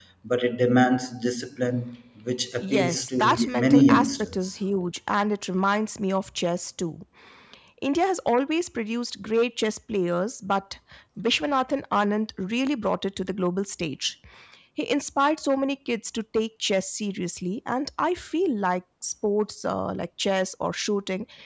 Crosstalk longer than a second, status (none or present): present